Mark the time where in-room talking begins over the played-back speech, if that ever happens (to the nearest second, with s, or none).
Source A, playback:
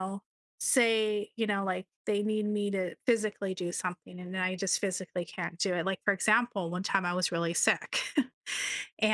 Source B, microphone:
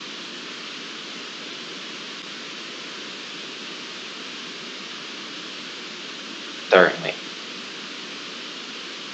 7 s